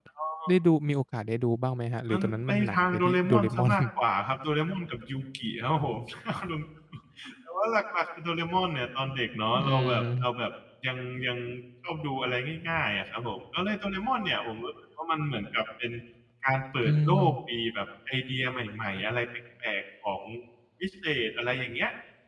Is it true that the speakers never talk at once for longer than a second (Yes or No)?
No